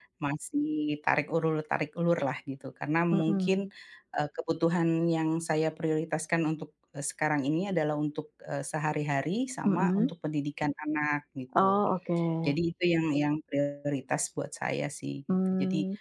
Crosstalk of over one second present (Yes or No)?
No